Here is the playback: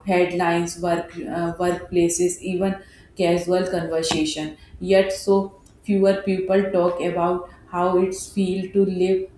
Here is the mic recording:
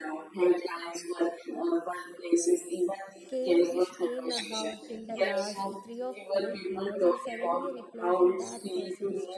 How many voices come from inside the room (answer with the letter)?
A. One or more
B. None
A